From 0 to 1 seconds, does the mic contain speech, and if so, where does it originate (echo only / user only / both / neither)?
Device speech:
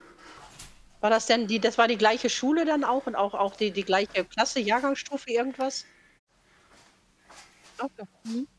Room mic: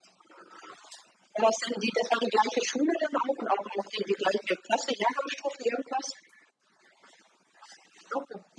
neither